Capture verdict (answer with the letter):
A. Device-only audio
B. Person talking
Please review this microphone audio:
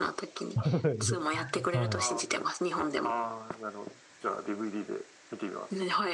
B